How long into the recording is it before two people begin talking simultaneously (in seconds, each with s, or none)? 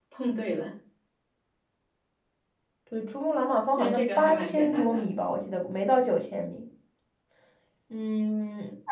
3.8 s